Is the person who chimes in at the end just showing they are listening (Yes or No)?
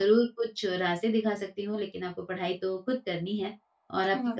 Yes